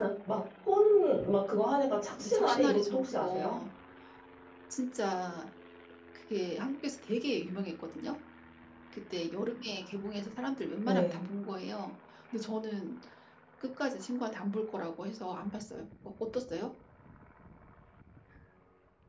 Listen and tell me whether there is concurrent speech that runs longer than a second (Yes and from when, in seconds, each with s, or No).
Yes, from 2.2 s